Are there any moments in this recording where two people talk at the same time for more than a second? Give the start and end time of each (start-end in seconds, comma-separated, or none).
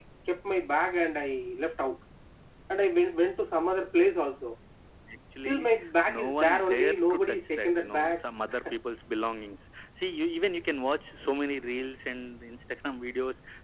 6.2-8.2